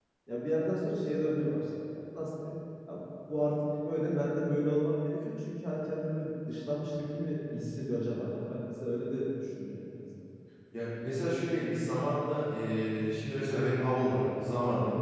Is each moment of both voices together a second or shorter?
Yes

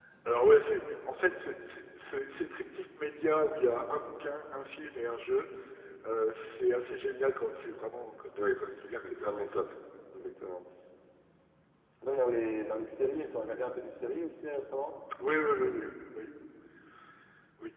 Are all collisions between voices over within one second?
No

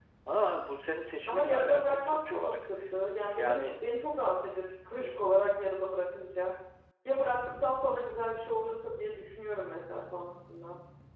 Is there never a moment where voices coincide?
No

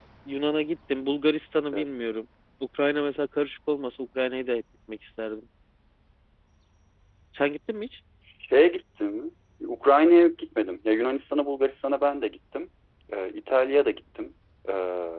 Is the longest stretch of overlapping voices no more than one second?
Yes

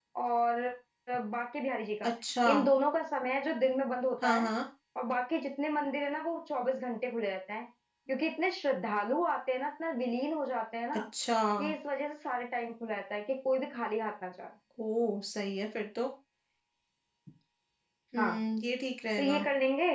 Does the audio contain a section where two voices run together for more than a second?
No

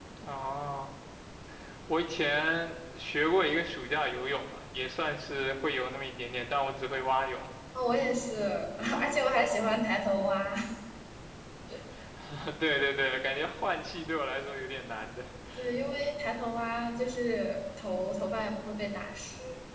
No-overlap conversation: Yes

